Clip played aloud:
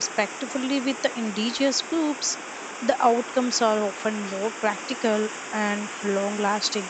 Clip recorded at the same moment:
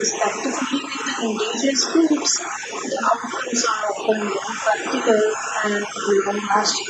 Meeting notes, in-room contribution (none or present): none